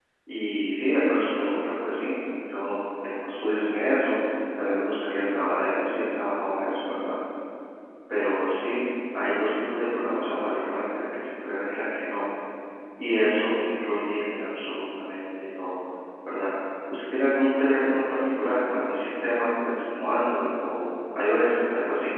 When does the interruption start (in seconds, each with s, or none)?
none